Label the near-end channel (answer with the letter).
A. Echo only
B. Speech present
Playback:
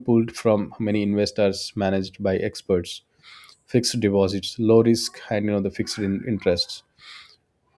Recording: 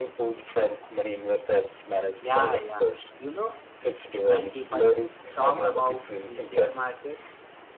B